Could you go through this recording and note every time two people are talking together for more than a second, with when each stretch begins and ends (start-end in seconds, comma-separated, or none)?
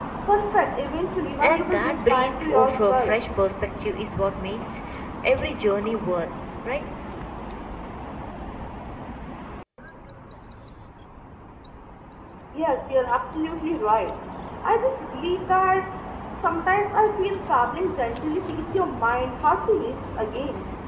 1.4-3.2